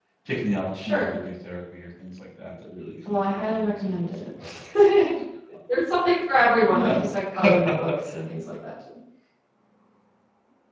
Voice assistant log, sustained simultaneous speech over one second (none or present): present